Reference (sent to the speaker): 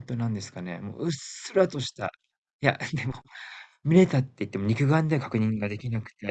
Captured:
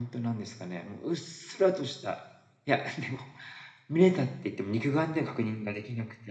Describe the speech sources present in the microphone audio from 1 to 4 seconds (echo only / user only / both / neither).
echo only